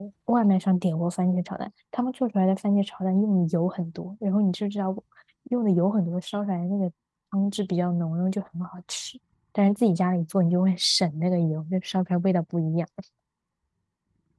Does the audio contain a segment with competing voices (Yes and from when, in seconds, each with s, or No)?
No